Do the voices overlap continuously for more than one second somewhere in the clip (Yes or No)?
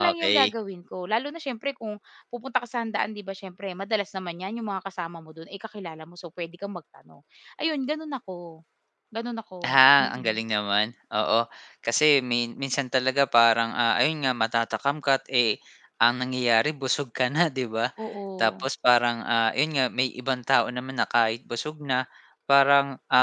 No